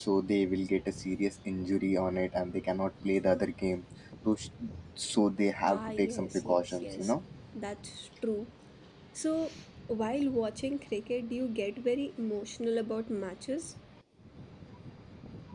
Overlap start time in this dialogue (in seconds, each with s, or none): 5.6 s